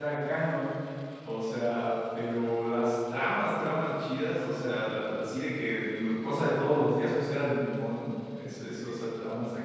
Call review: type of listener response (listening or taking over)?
listening